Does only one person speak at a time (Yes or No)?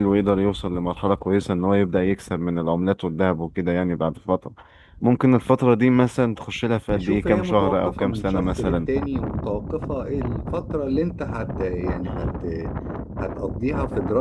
No